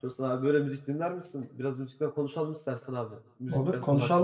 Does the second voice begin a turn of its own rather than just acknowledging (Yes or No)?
Yes